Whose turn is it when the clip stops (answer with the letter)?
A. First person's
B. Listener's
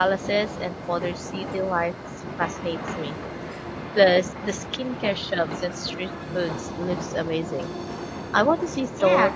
B